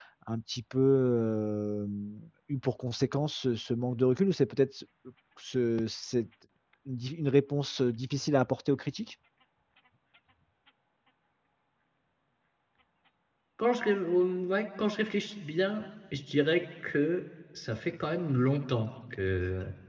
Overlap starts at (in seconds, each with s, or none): none